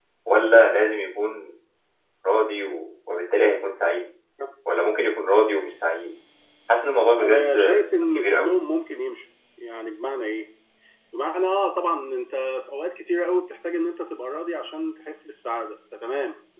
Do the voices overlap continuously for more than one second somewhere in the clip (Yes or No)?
Yes